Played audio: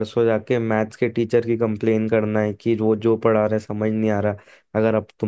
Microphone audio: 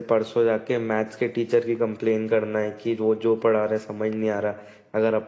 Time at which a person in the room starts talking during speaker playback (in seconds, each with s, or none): none